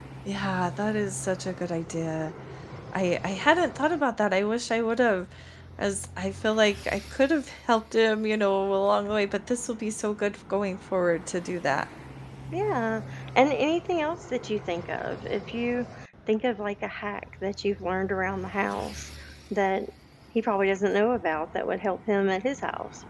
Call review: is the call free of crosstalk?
Yes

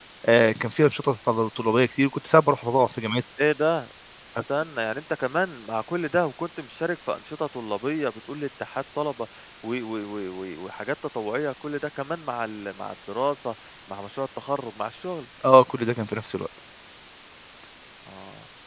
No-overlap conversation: Yes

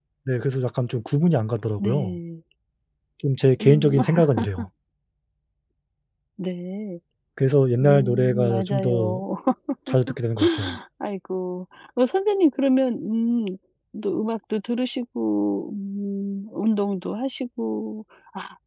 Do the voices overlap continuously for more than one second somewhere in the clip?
Yes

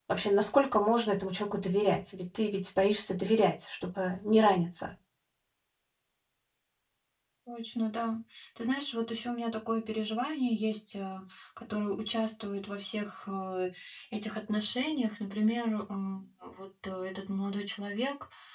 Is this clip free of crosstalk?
Yes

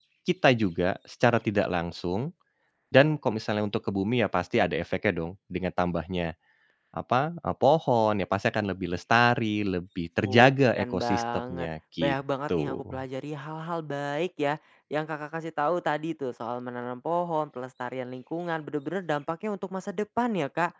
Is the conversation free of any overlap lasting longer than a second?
No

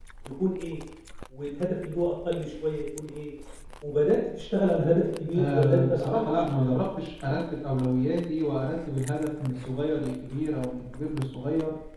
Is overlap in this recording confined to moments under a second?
No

